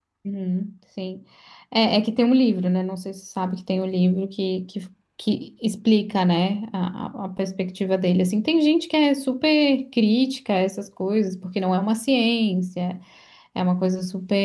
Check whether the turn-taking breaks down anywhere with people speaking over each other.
No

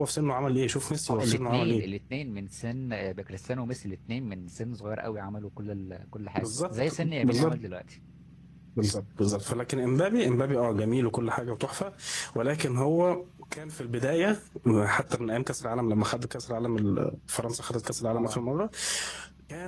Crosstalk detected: Yes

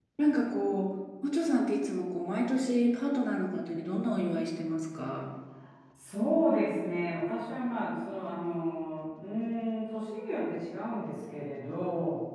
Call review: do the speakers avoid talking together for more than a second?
Yes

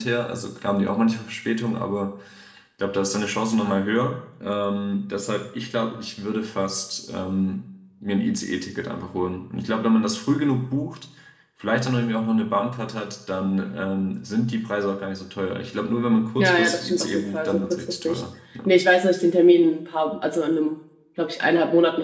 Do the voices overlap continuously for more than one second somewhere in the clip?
Yes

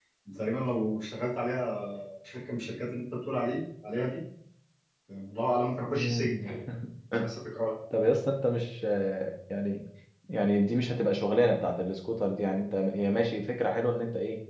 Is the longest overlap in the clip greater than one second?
No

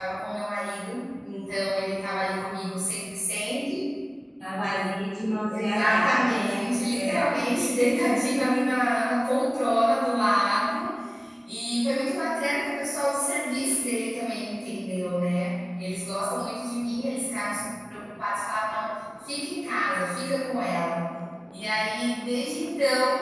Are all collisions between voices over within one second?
No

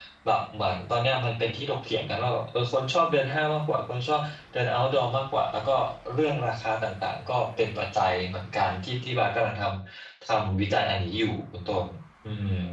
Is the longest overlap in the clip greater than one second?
No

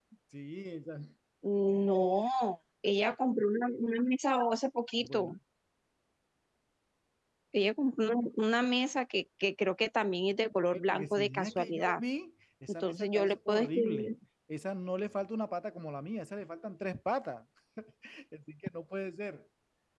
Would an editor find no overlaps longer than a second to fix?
No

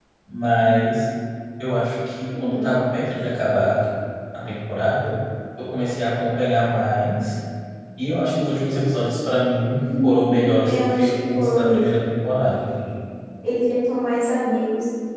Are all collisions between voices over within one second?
No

